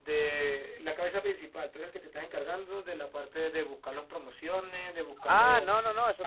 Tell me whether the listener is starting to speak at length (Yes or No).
Yes